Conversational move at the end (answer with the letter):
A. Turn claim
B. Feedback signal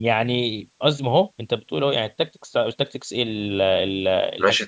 A